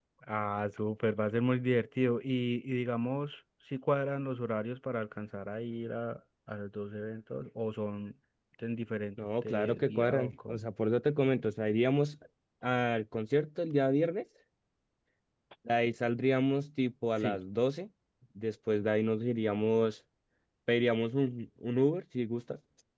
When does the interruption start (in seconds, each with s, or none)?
9.4 s